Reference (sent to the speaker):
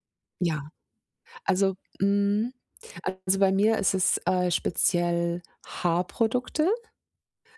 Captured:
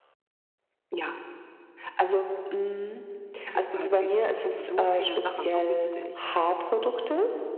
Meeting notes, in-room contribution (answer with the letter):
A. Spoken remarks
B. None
A